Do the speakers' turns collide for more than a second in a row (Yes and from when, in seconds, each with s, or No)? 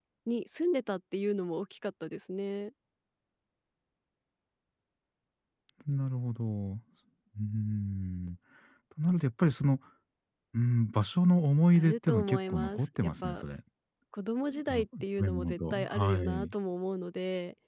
Yes, from 11.7 s